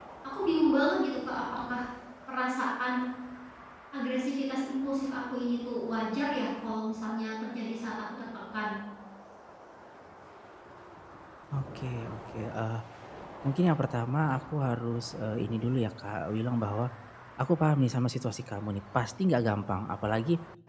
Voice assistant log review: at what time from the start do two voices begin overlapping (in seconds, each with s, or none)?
none